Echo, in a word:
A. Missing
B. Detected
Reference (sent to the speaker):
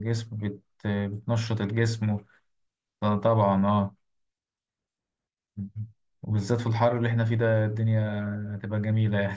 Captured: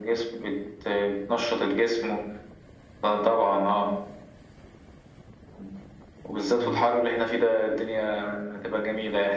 B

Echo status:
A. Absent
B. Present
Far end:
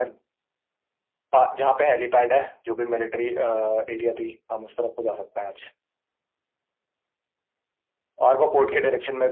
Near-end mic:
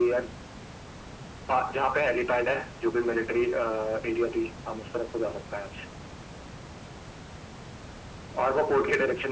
B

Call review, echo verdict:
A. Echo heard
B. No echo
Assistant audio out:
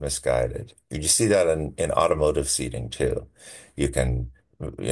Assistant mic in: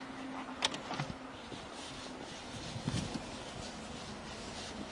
B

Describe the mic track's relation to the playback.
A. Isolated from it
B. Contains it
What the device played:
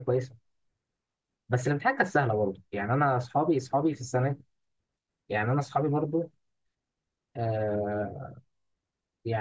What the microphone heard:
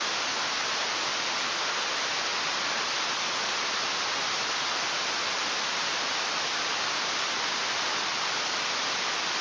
A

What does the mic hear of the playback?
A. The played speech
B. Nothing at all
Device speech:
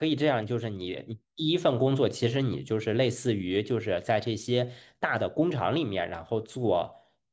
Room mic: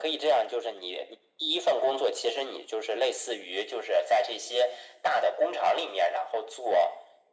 A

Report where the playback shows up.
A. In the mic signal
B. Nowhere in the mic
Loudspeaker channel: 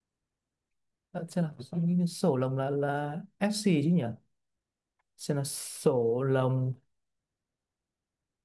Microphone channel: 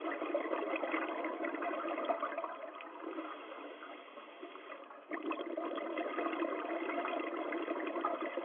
B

